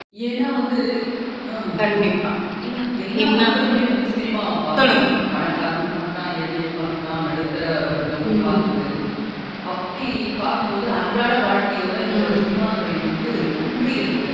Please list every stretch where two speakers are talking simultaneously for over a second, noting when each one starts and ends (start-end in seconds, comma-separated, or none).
none